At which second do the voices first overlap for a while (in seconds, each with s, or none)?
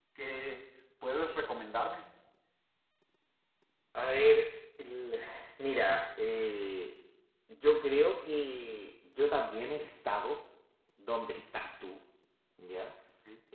none